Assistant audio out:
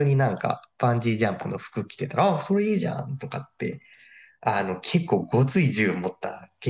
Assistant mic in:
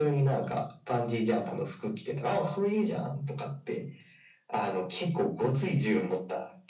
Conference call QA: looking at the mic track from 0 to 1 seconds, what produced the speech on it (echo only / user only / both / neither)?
echo only